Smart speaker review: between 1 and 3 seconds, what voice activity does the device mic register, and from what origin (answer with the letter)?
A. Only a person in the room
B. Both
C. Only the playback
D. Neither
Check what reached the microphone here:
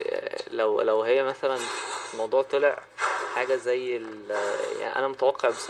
C